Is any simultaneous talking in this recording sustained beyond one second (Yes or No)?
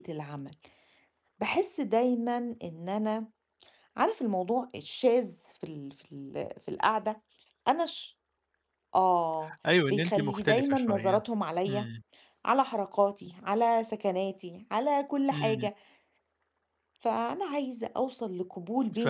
Yes